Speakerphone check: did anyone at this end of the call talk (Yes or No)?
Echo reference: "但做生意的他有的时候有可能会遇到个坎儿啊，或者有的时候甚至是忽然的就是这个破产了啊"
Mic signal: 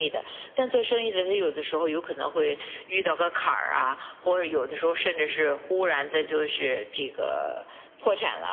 No